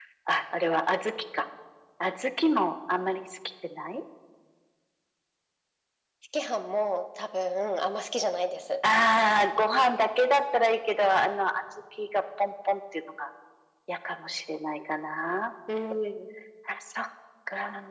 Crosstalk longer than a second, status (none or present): none